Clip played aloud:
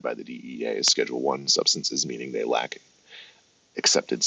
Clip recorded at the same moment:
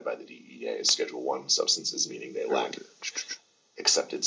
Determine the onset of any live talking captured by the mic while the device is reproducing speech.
2.5 s

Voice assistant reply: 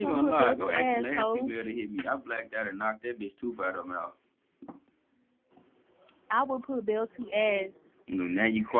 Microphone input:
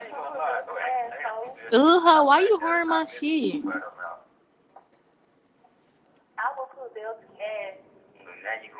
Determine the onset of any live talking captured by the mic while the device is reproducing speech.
1.7 s

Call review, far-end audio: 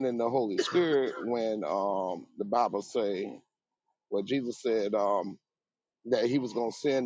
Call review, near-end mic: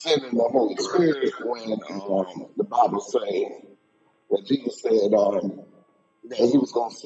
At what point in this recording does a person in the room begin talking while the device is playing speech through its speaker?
none

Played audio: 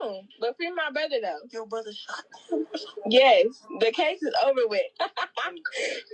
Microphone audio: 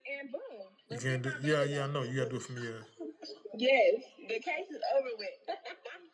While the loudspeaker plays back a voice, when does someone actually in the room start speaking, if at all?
0.9 s

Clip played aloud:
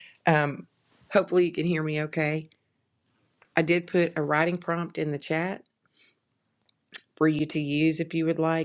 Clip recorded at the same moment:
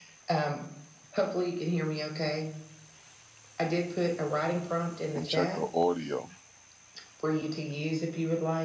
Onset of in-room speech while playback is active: 5.0 s

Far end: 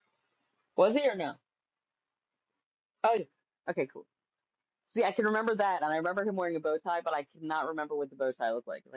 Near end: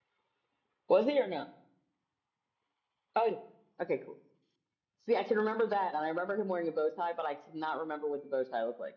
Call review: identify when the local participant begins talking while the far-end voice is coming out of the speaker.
none

